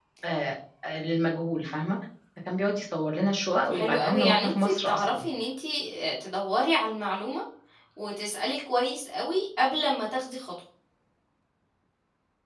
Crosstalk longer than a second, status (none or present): present